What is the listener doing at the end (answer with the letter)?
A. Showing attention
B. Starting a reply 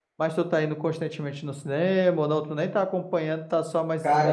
B